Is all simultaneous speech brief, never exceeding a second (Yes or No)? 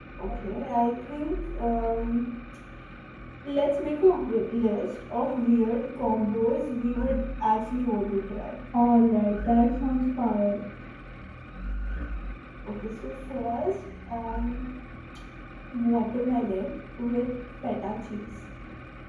Yes